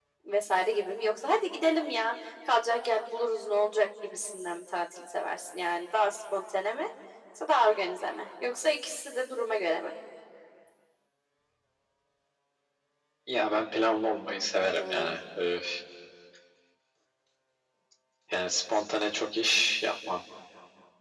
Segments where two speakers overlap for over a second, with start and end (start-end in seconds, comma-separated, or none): none